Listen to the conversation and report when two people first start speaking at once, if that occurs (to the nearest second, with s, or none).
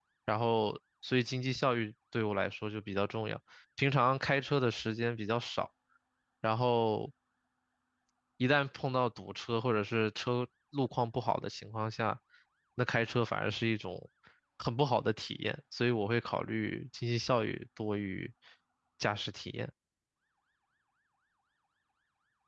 none